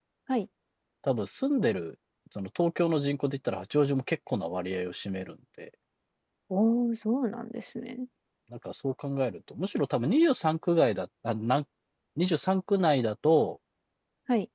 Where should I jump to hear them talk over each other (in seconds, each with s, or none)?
none